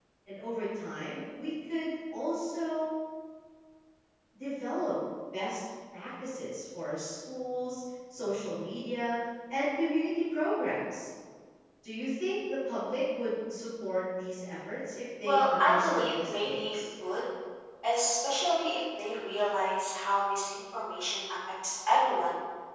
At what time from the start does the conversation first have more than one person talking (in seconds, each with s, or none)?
15.2 s